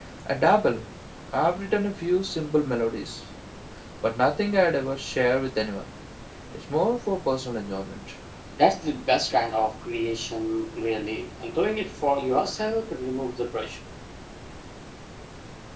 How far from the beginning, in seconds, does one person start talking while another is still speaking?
none

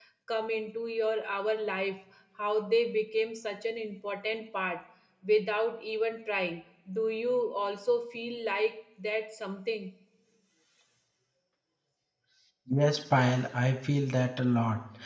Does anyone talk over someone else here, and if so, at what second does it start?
none

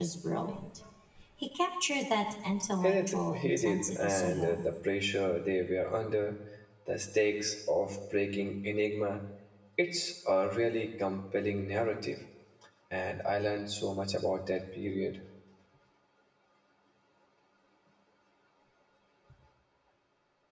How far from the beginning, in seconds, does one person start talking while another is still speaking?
2.8 s

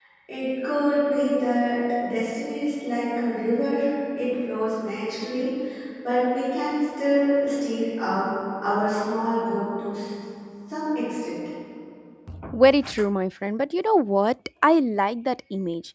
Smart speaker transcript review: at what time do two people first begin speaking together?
none

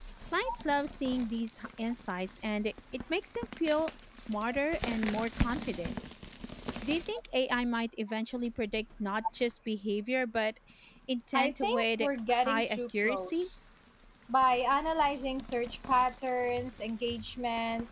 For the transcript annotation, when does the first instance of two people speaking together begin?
11.3 s

